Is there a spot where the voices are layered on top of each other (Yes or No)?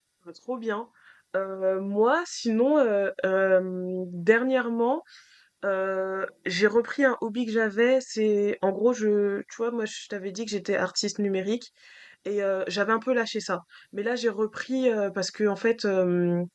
No